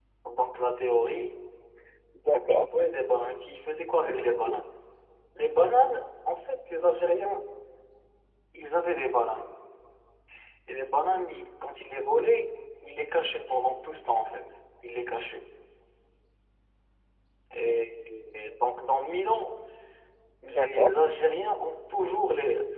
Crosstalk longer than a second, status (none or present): none